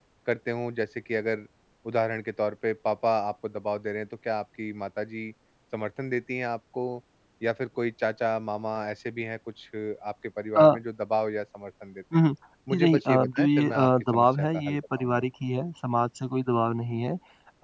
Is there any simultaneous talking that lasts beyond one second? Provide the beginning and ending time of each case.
12.7-15.2

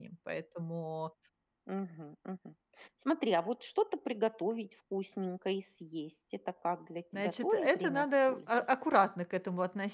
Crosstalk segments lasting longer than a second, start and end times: 7.1-8.6

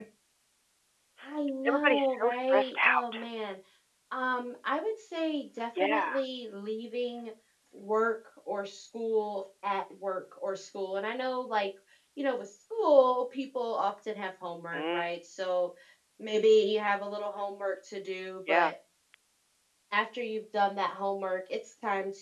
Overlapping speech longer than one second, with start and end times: 1.6-3.2

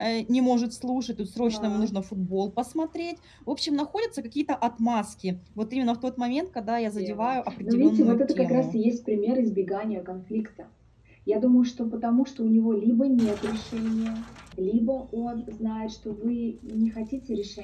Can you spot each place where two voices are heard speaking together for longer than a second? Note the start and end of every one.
7.0-8.7

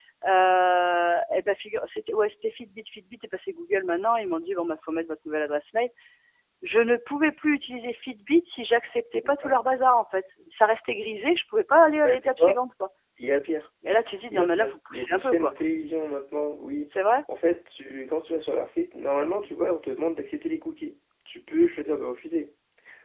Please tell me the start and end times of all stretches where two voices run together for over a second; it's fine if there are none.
14.3-15.5

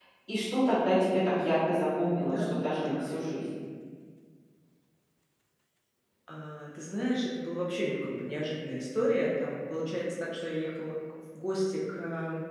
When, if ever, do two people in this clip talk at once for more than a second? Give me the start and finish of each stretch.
none

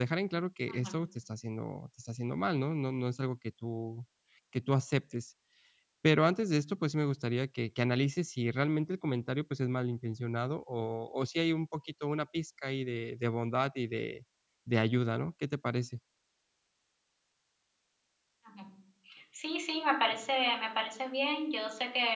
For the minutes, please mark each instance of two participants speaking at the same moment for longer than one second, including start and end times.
none

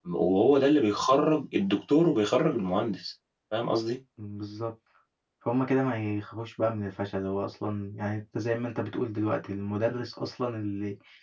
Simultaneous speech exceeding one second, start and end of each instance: none

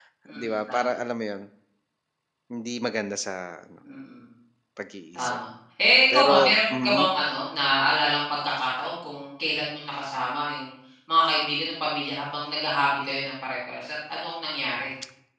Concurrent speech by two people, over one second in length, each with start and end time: none

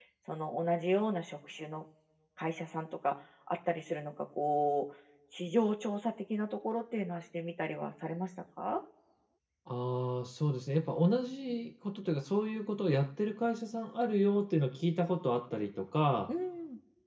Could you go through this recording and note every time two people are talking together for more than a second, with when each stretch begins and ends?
none

